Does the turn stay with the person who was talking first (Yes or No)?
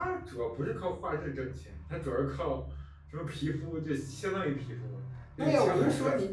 No